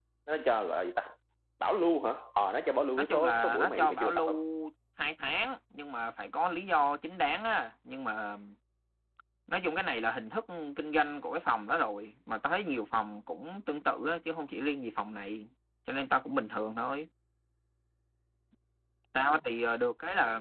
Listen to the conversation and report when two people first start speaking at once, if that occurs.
3.0 s

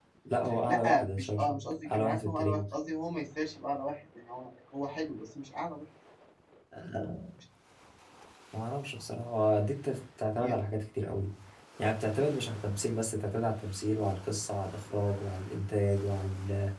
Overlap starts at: 0.7 s

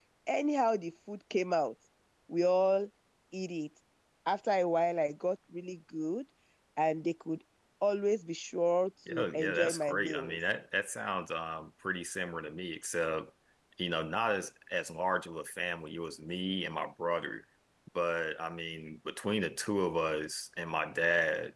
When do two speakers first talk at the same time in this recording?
9.1 s

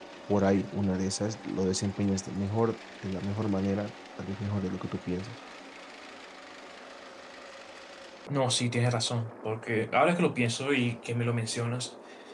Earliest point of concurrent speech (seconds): none

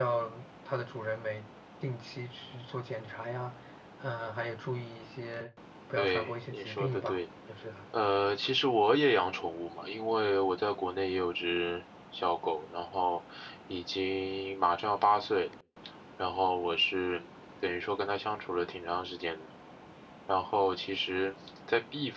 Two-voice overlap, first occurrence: 6.0 s

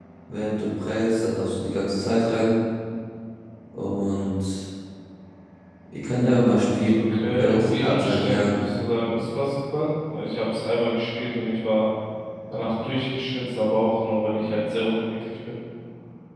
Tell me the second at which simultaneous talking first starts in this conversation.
7.2 s

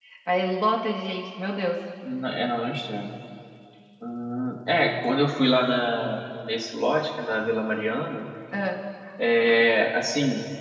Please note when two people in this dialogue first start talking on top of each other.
none

